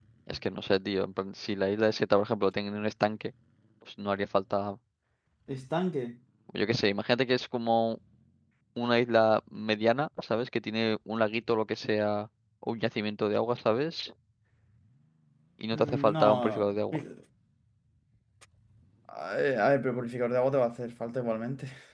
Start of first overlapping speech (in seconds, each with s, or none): 15.7 s